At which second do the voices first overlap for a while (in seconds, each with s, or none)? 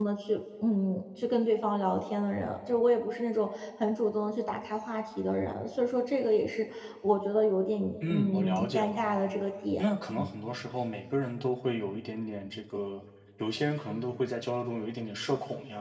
8.0 s